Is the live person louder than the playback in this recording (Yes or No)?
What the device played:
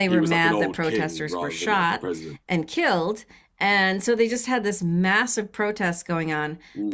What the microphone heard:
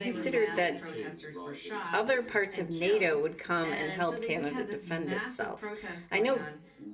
Yes